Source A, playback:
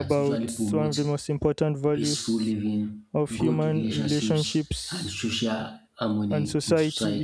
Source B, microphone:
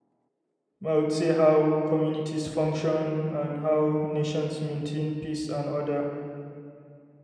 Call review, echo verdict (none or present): none